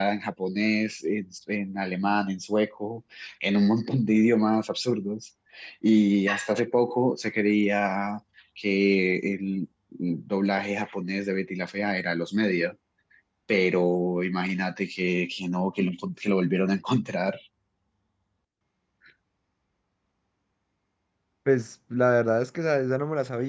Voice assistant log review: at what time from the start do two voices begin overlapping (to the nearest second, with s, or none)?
none